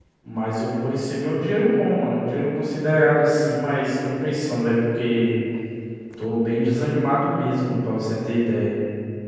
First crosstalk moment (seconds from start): none

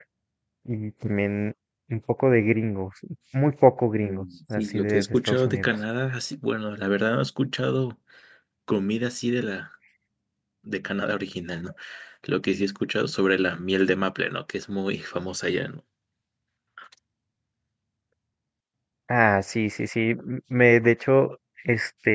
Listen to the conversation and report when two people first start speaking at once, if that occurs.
4 s

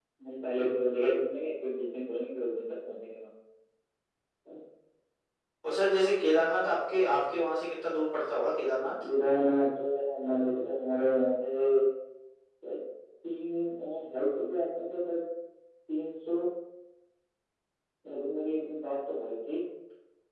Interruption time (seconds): none

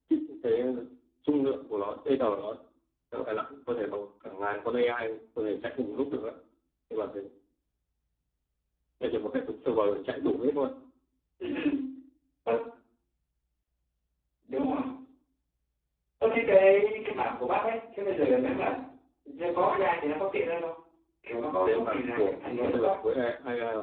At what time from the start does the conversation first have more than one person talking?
22 s

